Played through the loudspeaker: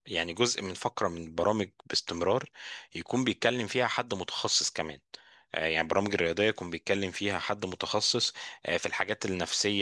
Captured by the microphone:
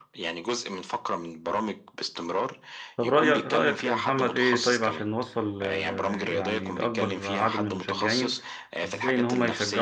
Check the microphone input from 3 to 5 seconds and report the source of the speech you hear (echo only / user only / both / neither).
both